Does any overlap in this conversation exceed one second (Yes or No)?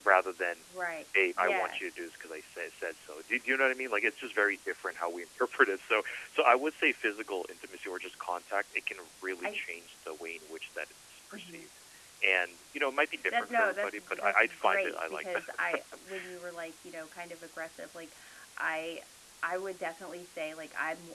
Yes